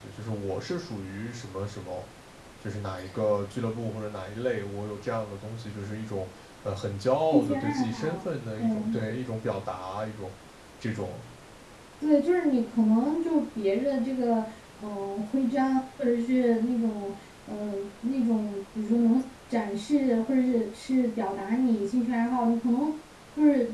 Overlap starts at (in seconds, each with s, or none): 7.3 s